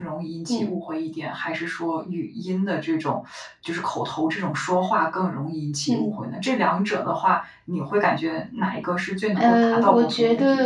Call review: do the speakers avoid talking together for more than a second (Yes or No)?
No